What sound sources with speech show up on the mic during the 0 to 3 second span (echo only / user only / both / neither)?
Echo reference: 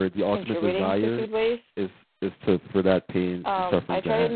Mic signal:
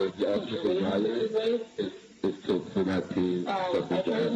echo only